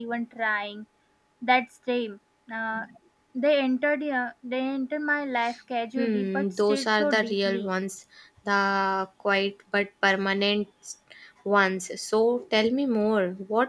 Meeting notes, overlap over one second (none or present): present